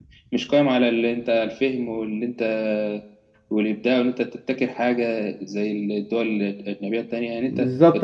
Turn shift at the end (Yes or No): Yes